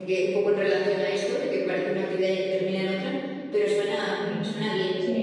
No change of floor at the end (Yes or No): No